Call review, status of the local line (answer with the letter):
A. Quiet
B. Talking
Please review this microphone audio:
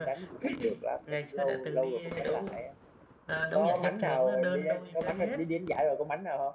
A